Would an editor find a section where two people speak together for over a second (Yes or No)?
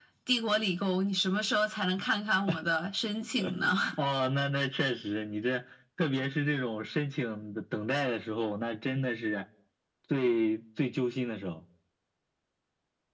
No